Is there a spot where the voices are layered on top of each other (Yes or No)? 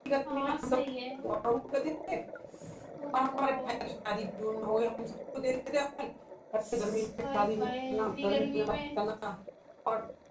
Yes